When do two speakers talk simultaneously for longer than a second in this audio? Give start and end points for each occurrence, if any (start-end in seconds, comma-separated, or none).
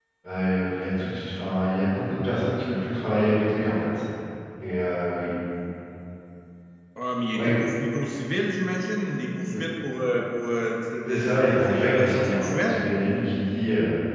11.1-12.9